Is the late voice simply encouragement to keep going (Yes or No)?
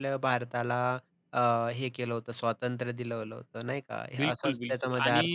No